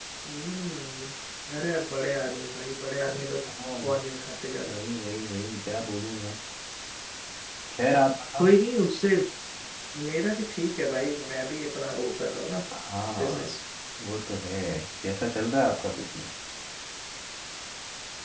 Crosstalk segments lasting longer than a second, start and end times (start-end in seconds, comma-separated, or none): none